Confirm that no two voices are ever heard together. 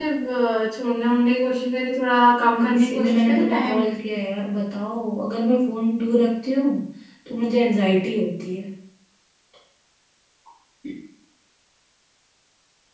No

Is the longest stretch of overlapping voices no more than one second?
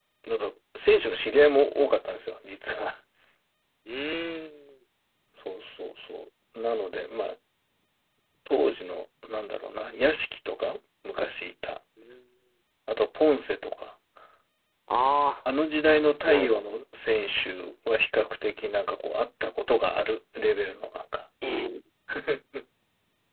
Yes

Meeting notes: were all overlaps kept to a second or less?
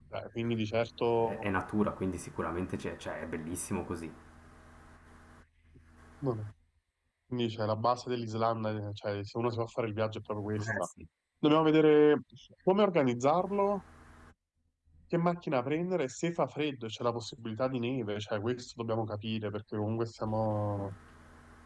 Yes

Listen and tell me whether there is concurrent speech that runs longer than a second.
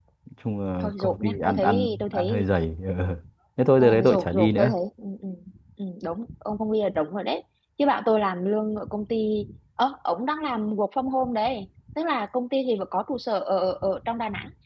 Yes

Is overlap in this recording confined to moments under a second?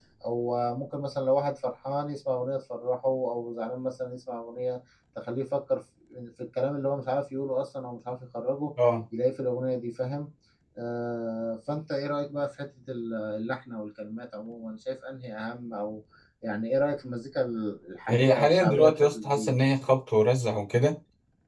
No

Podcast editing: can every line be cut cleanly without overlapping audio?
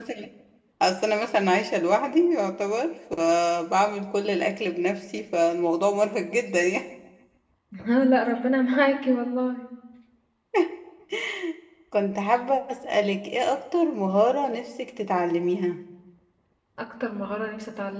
Yes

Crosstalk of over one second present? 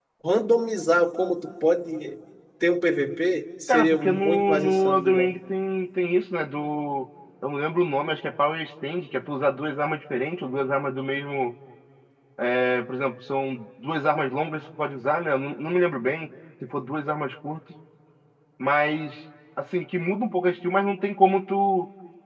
Yes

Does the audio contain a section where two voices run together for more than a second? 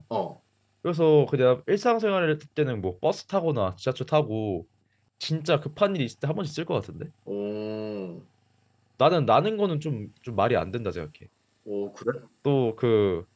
No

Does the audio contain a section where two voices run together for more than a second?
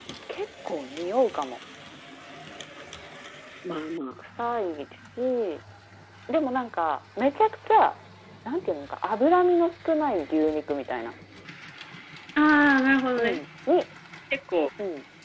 No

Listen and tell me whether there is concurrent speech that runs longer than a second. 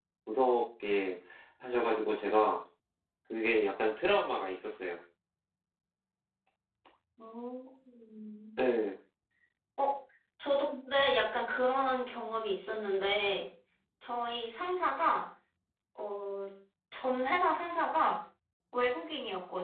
No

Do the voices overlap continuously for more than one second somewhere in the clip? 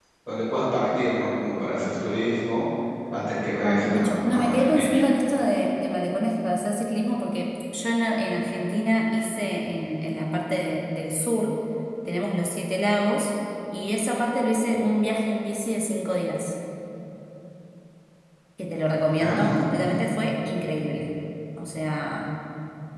Yes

